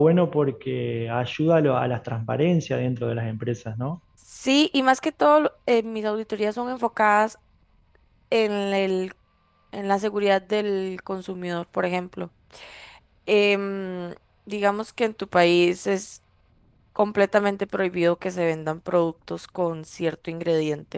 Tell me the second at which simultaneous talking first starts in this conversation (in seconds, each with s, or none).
none